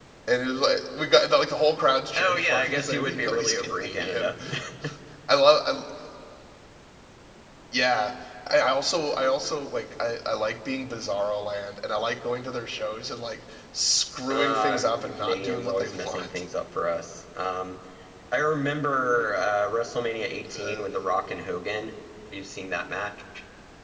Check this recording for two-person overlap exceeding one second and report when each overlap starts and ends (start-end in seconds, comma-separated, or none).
2.2-4.3, 14.3-16.3